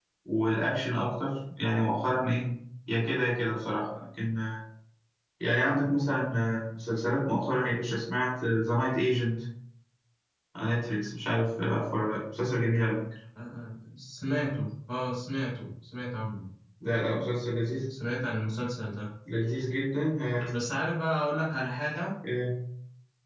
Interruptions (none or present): none